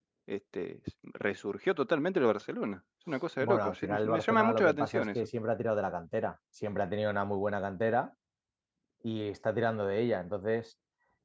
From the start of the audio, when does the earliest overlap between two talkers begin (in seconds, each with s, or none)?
3.4 s